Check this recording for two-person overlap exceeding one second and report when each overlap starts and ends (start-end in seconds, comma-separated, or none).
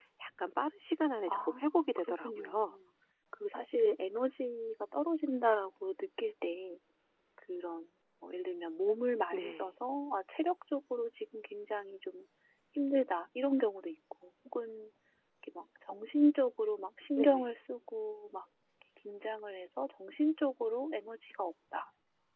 1.3-2.8